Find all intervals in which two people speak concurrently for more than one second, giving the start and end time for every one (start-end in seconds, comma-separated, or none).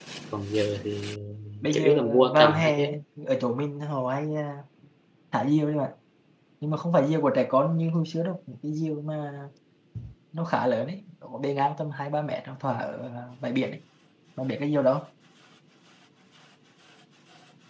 1.7-3.0